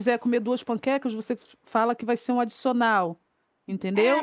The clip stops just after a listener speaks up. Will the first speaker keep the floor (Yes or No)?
No